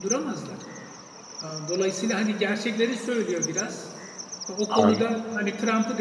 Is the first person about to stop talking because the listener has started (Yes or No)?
No